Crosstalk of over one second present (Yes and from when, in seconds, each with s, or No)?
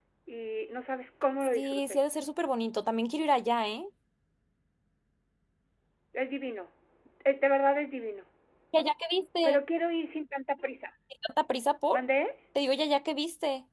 No